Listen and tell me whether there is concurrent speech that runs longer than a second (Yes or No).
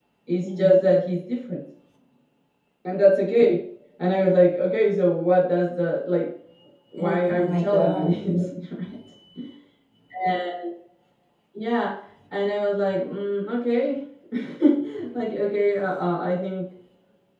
Yes